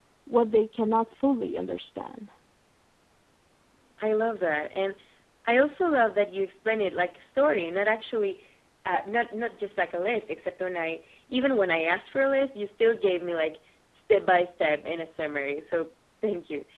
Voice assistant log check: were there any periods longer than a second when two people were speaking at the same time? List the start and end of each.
none

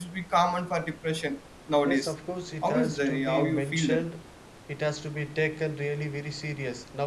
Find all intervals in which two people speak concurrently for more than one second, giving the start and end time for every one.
2.6-4.1

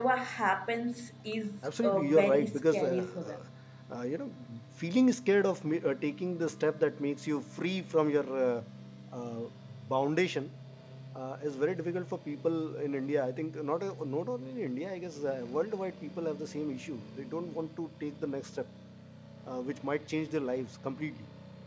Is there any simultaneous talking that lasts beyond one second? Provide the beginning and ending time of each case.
1.6-3.2

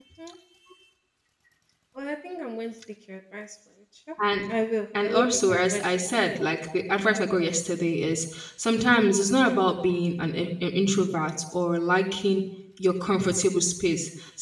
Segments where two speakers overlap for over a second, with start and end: 5.0-6.2

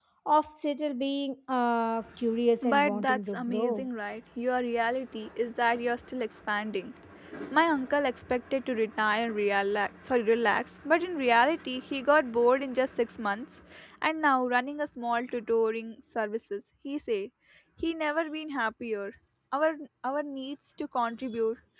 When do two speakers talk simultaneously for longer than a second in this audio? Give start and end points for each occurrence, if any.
2.6-3.9

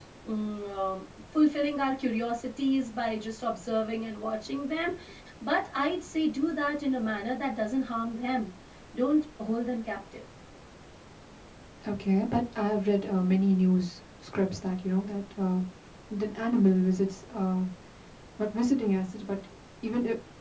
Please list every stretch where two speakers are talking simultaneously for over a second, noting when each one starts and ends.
none

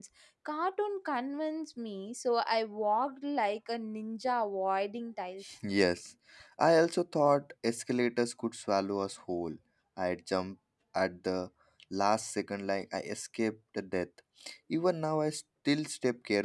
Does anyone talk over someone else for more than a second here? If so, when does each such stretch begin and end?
none

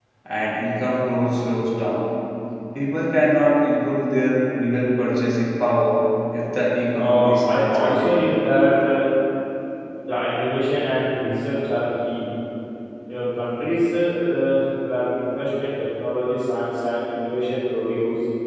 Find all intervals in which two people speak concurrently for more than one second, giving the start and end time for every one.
7.0-8.2

